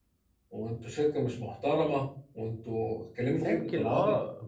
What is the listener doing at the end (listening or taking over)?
taking over